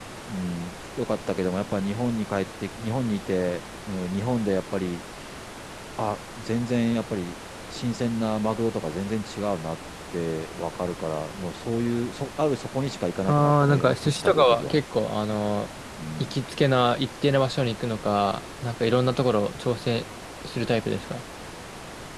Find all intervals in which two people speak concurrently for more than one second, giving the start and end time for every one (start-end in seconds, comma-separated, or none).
13.3-14.8